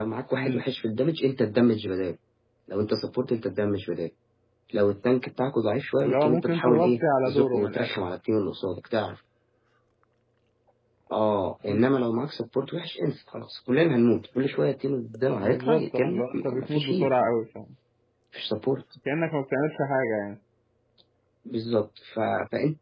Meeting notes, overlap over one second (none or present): present